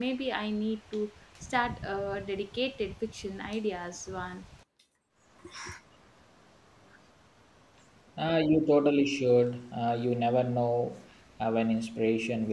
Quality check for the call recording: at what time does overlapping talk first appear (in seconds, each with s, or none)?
none